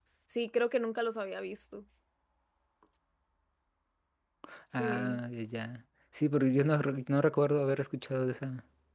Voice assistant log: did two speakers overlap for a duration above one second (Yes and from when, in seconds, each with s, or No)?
No